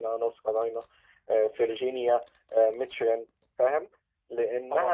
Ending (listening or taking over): listening